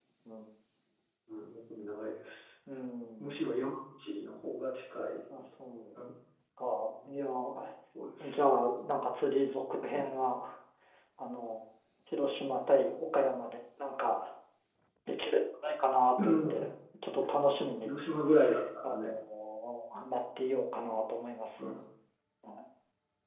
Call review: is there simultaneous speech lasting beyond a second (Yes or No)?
No